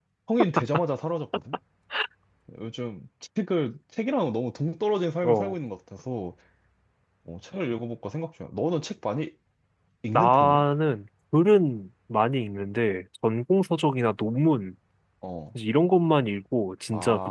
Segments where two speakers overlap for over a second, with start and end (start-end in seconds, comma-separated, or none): none